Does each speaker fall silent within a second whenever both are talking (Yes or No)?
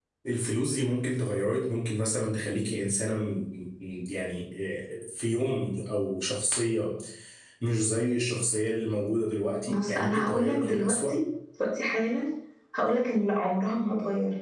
No